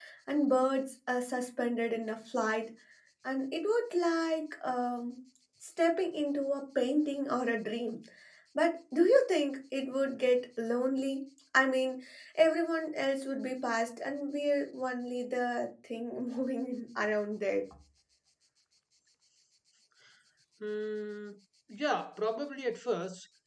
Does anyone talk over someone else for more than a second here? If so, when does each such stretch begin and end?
none

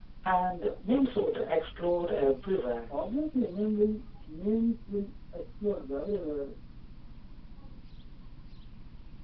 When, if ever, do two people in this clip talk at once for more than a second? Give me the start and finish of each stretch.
none

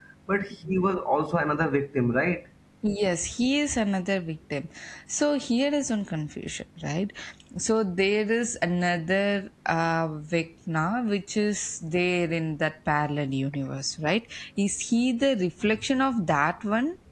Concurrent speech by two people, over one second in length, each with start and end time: none

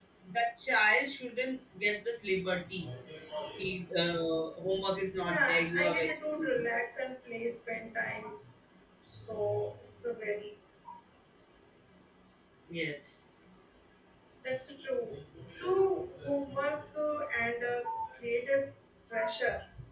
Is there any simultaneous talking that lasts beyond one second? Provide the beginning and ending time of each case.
5.2-6.6

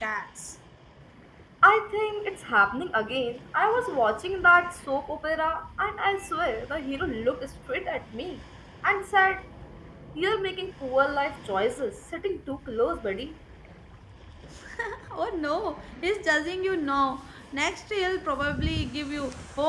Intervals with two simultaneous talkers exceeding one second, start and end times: none

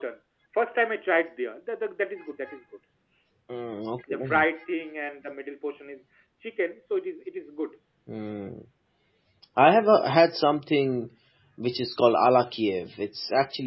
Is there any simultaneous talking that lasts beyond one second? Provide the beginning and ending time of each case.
none

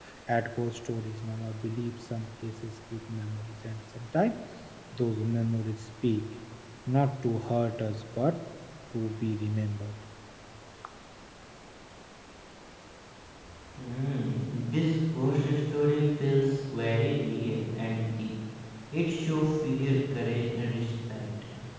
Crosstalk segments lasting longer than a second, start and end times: none

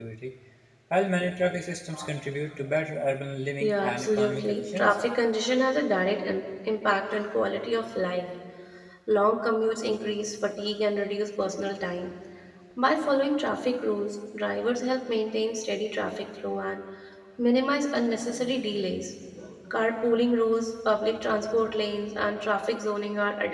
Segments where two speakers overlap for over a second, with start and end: 3.6-5.0

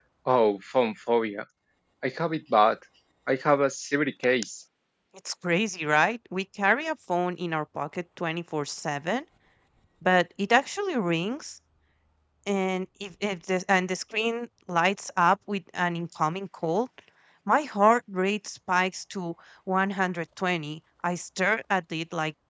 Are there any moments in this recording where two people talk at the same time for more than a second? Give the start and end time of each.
none

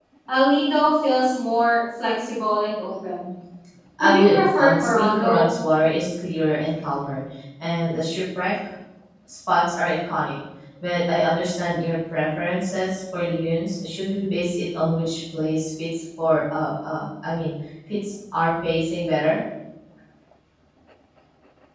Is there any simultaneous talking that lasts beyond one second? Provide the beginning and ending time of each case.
4.0-5.5

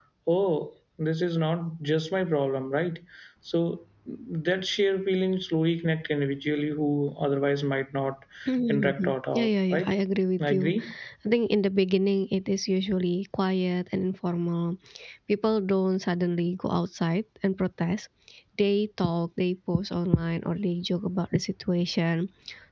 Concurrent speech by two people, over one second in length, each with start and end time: 8.7-9.9

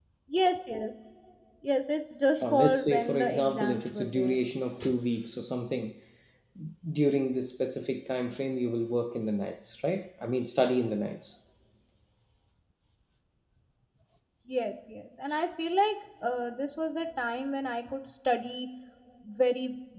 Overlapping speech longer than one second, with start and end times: 2.4-4.3

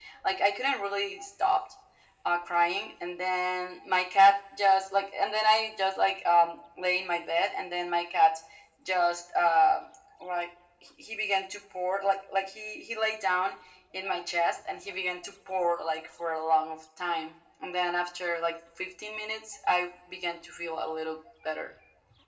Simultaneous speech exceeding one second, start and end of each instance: none

